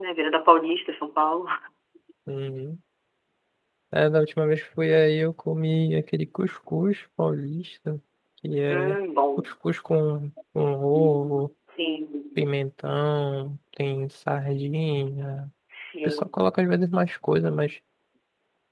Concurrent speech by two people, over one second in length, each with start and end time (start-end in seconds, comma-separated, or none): none